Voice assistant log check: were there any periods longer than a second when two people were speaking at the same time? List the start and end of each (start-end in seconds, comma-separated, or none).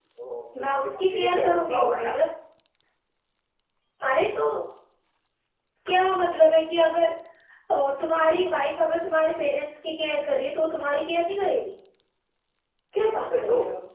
0.6-2.1